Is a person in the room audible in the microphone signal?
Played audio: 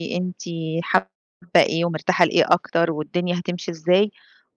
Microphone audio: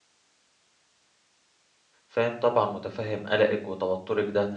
Yes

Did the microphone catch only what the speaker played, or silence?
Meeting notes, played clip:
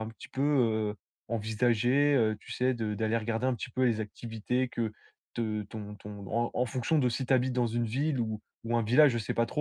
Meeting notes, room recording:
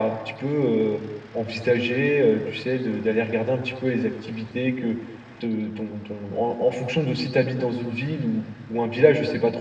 Yes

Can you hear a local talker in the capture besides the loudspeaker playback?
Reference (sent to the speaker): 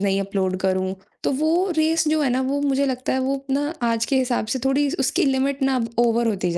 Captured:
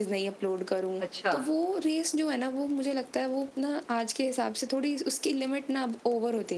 Yes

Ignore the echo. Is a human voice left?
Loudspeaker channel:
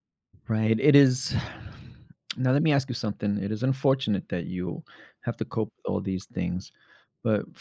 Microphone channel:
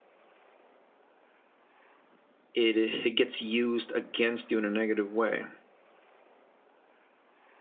Yes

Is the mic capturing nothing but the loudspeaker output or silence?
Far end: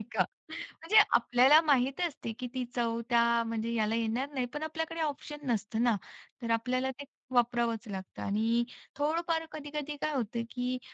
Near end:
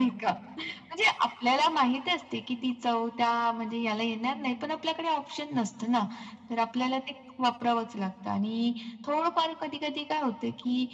Yes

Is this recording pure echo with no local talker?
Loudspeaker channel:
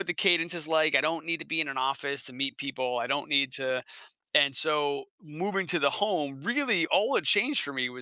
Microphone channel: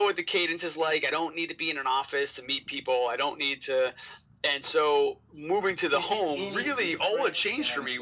No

